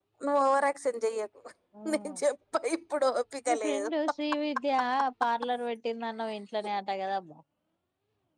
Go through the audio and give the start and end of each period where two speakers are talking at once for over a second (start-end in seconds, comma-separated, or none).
none